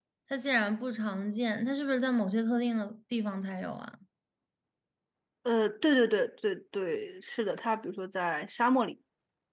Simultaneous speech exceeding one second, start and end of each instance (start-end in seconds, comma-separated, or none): none